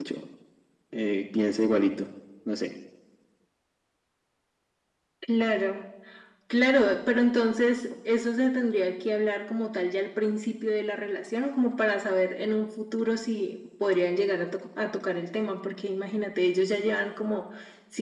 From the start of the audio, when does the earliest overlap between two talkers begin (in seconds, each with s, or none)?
none